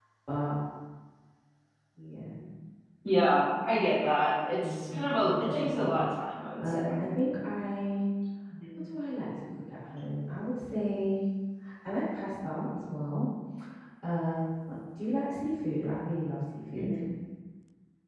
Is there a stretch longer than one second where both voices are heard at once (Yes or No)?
Yes